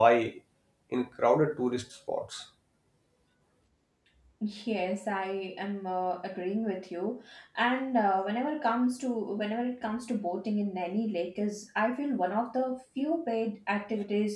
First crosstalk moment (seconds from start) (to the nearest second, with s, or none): none